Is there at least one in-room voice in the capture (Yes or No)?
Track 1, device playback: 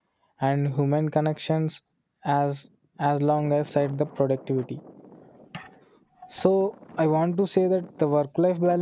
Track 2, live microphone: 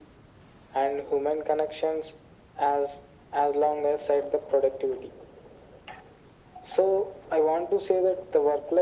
No